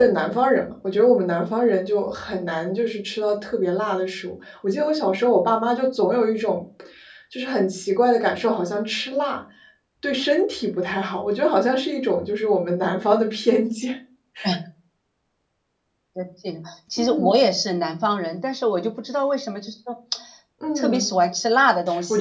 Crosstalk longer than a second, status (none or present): none